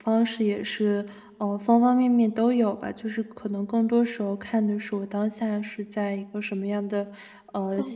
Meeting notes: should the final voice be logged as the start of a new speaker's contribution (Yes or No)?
No